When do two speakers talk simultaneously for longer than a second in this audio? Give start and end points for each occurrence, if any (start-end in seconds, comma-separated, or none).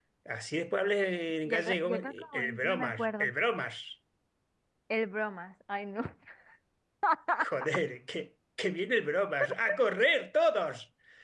1.4-3.2